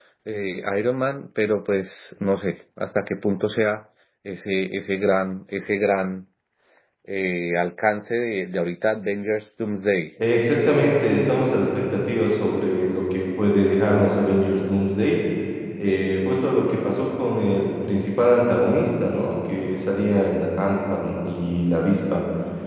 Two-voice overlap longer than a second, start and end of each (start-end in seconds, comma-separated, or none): none